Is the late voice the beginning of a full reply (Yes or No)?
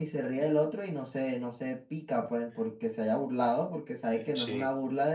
No